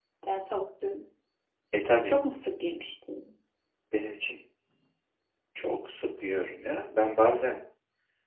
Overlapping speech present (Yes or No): No